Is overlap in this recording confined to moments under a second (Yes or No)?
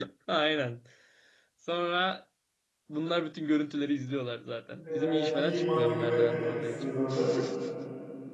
No